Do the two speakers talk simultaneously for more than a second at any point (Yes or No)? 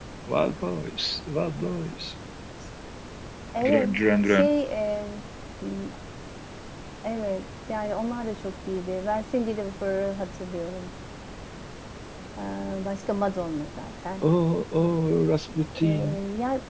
No